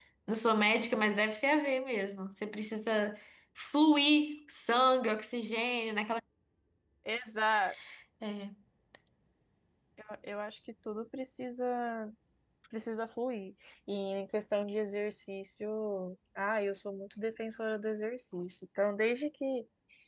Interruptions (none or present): none